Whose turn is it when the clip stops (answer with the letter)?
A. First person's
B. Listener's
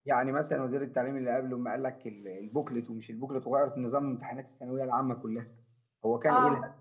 A